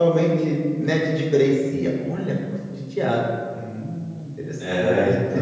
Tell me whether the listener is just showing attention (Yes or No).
No